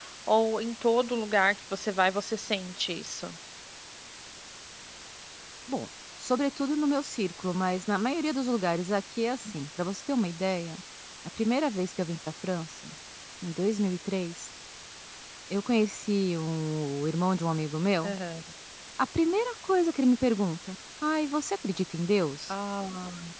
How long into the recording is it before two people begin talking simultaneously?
none

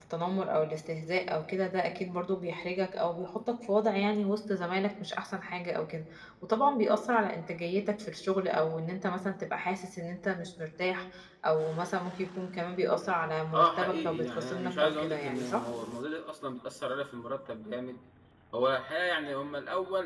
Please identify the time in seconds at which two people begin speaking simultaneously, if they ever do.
13.5 s

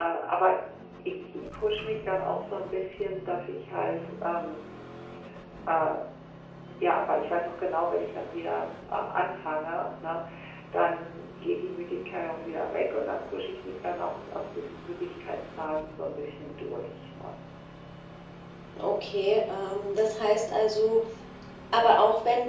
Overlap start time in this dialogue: none

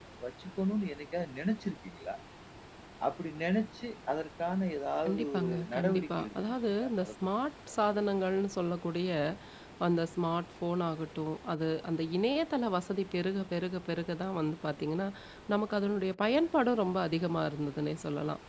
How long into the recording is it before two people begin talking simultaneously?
5.0 s

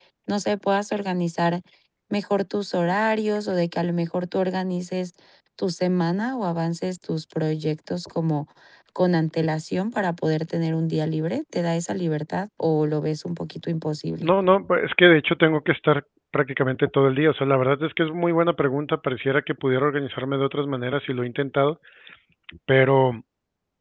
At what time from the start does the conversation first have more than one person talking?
none

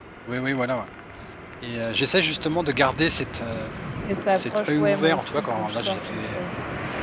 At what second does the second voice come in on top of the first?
4.3 s

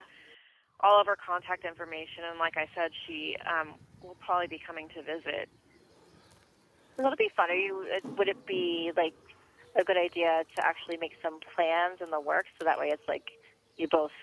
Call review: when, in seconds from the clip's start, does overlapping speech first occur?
none

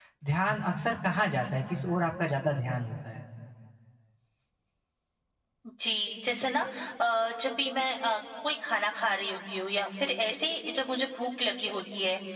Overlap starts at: none

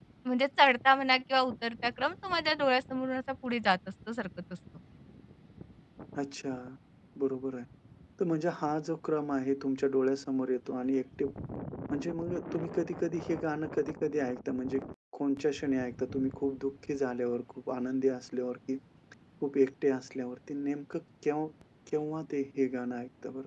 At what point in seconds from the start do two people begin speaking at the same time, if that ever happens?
none

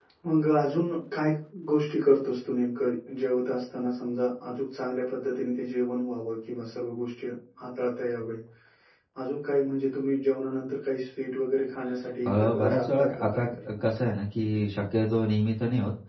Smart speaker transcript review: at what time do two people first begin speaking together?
12.2 s

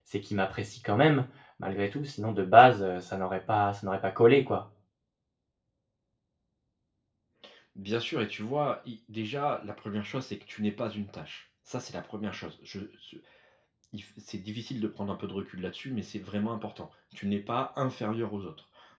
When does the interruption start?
none

